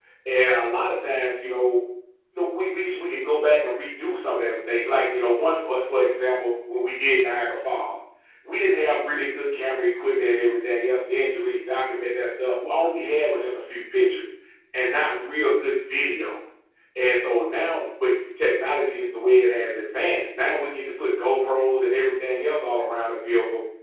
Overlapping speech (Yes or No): No